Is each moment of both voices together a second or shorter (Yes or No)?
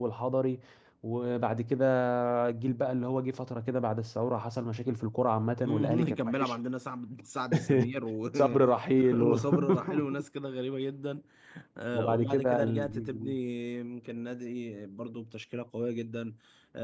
No